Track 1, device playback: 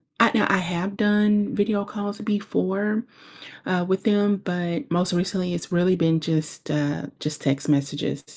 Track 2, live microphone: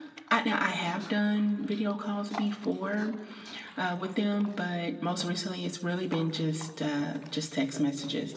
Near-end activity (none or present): none